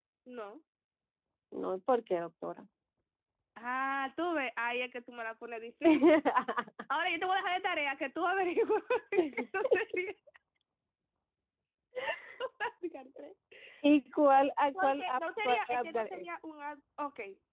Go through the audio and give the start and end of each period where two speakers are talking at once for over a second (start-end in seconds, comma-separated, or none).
14.8-16.2